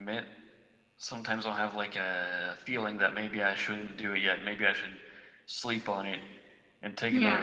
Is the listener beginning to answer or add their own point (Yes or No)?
No